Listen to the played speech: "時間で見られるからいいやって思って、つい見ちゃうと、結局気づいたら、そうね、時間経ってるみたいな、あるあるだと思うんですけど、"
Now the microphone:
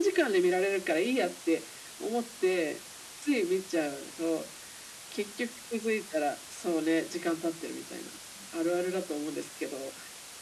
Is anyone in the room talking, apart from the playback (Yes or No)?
No